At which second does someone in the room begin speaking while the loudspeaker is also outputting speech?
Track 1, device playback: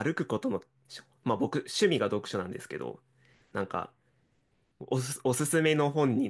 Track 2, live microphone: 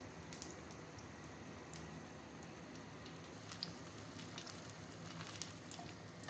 none

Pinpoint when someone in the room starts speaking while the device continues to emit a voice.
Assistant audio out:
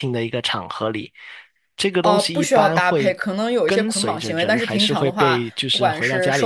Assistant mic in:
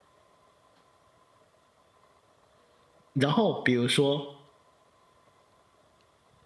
3.1 s

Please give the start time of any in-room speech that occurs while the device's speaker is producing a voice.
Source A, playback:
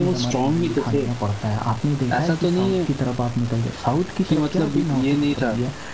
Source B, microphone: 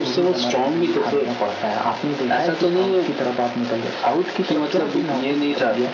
none

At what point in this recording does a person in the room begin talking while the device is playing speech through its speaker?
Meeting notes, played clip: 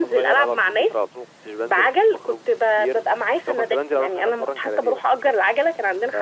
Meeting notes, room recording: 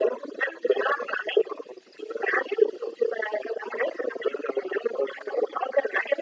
none

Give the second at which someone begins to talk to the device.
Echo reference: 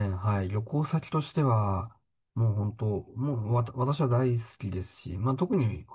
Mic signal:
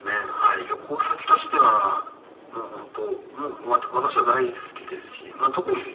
none

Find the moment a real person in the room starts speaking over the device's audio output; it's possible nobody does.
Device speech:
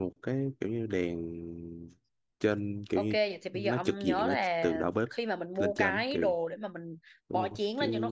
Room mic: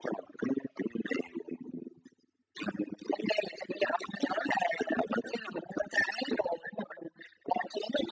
none

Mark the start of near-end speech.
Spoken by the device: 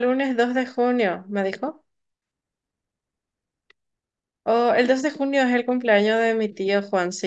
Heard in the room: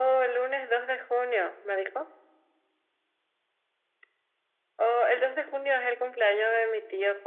none

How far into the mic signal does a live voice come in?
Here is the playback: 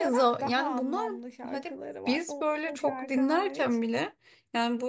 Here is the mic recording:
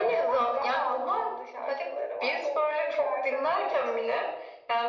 none

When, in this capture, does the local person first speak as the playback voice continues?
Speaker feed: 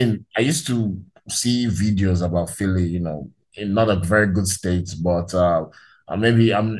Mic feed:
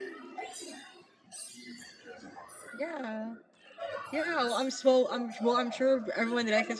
2.7 s

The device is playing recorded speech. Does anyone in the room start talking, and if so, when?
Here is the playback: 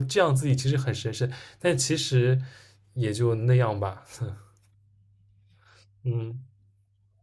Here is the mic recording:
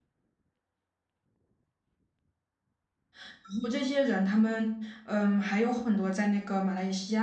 3.3 s

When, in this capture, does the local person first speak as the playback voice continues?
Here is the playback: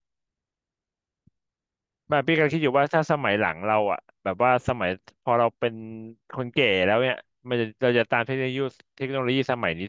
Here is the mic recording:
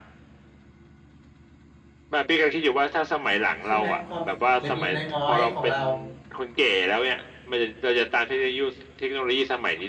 3.6 s

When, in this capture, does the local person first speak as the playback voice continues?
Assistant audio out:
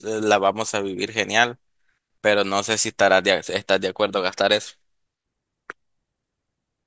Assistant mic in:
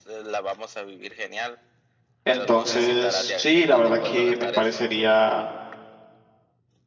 2.2 s

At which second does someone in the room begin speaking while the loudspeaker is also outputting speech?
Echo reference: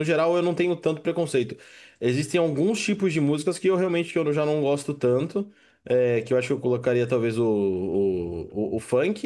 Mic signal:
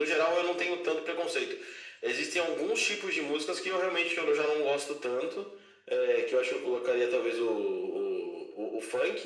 none

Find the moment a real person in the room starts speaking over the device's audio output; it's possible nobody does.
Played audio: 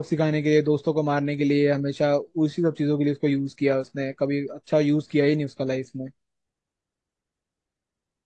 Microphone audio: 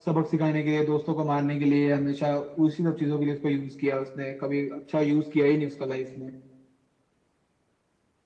none

